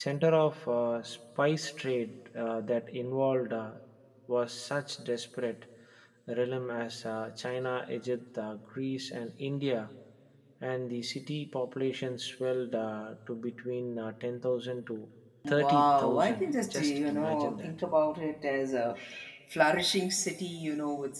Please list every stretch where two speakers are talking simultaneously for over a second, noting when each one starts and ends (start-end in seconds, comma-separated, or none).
15.5-17.7